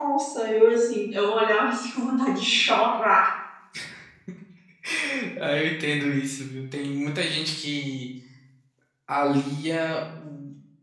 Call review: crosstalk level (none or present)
none